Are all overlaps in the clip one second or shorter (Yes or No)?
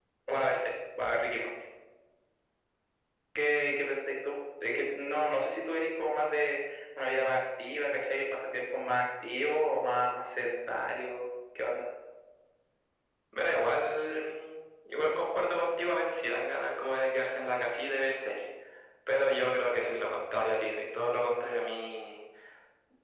Yes